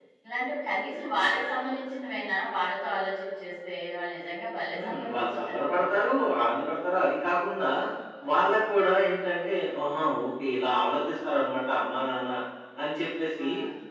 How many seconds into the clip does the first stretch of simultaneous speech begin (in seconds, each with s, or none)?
4.7 s